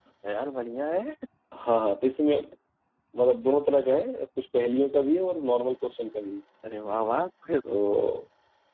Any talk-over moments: No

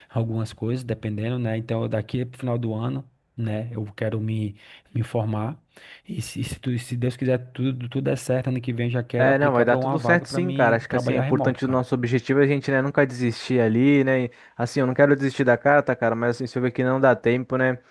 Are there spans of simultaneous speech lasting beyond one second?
Yes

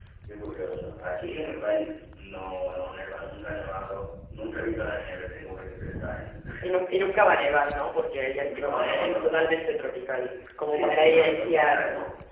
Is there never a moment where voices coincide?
No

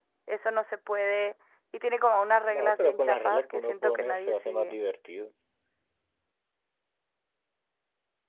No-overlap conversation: No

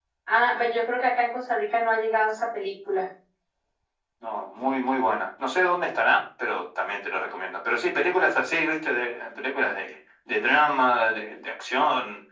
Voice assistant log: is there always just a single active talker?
Yes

